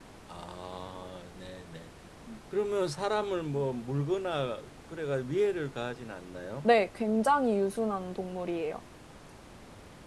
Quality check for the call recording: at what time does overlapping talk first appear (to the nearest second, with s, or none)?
none